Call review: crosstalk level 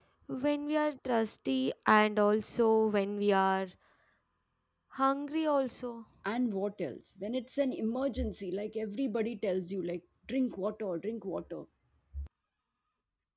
none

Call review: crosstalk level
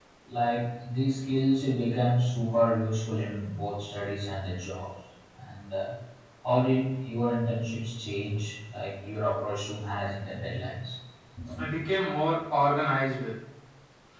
none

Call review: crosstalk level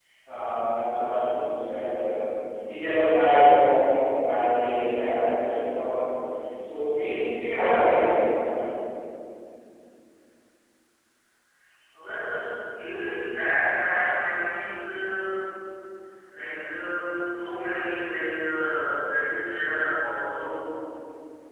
none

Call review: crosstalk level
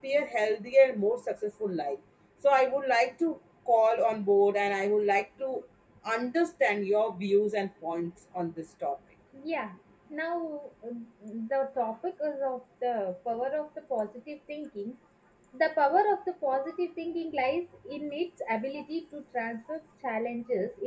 none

